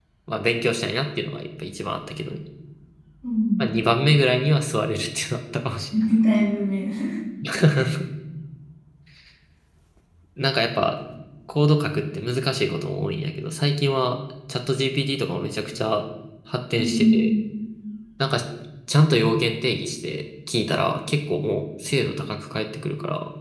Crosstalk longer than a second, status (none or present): none